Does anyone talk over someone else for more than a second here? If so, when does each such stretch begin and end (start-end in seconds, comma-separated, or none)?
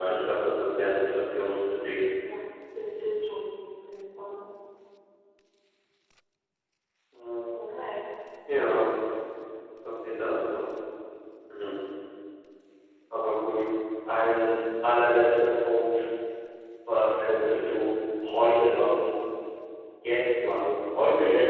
none